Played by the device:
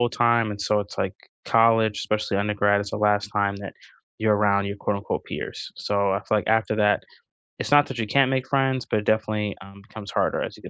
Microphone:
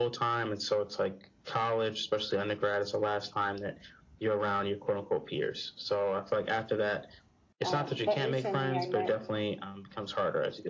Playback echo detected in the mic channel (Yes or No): Yes